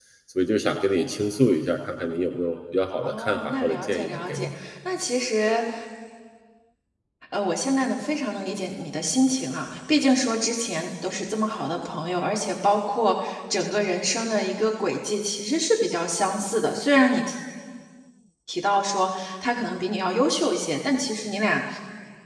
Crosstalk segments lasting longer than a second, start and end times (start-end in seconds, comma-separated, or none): 3.0-4.5